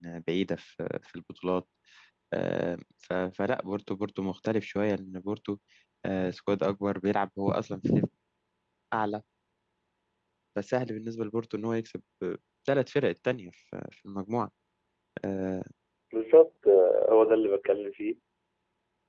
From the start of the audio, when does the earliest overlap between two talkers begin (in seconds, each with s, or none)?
none